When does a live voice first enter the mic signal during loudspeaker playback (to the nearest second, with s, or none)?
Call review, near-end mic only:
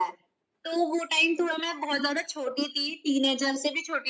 none